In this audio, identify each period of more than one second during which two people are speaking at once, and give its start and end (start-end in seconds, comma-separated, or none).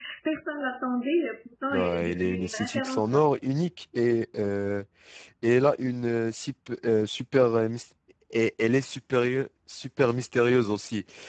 1.7-3.2